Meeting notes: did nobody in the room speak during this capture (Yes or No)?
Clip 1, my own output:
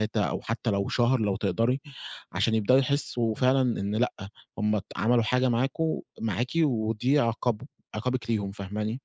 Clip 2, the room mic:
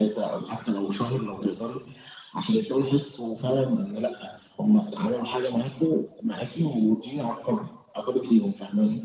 Yes